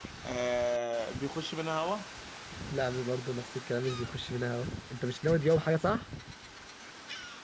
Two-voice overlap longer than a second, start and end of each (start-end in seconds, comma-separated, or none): none